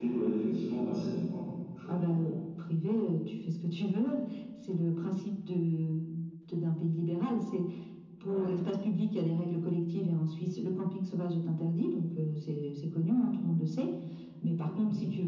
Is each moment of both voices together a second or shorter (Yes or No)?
Yes